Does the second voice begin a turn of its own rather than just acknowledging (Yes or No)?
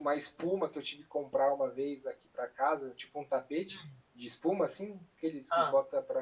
No